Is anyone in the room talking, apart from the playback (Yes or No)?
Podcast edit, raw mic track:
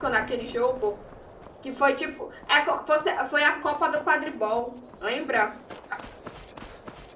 Yes